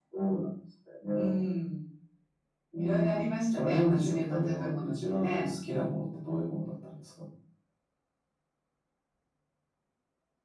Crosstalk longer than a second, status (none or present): present